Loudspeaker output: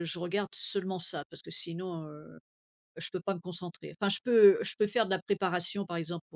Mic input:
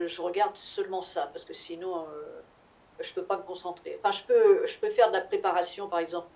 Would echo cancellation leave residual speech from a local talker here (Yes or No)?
No